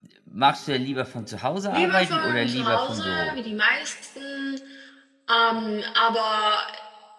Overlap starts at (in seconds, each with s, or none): 1.7 s